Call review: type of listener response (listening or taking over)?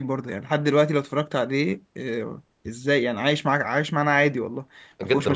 taking over